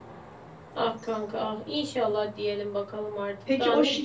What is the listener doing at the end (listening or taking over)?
taking over